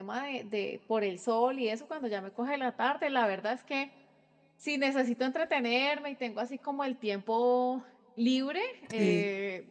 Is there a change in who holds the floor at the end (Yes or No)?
No